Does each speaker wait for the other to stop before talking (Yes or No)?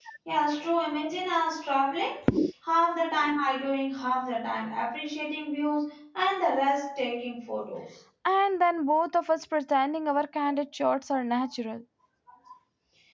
Yes